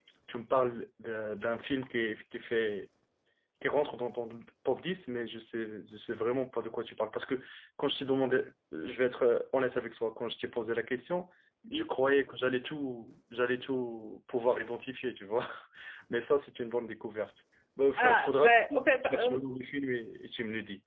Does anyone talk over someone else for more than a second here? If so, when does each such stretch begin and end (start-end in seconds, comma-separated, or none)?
18.0-19.4